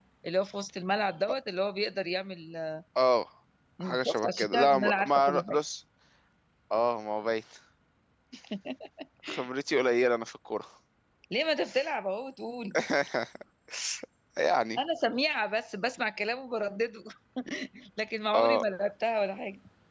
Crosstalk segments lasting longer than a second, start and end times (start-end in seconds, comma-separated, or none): 3.8-5.6